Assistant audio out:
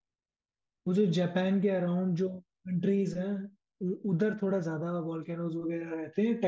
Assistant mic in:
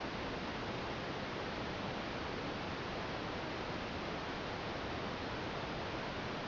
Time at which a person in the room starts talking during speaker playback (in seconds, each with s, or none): none